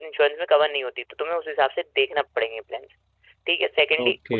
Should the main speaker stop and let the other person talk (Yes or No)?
No